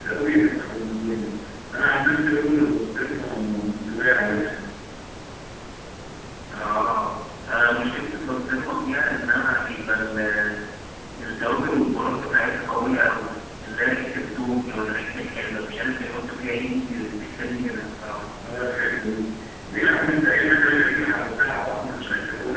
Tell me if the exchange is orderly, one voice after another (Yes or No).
Yes